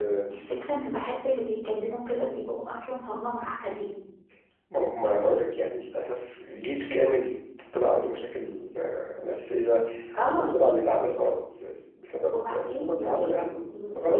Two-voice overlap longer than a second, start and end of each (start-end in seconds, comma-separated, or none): 12.3-13.5